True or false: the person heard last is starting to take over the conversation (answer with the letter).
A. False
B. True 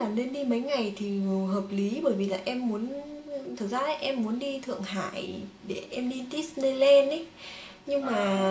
A